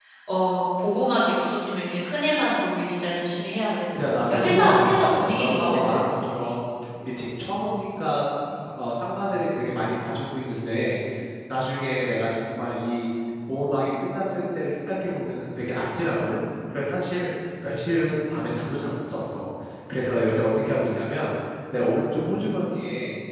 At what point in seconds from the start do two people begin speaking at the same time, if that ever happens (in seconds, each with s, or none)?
4.3 s